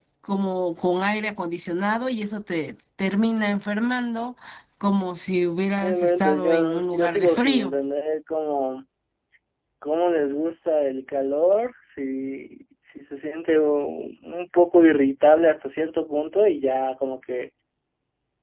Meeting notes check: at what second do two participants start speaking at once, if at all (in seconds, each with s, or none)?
5.8 s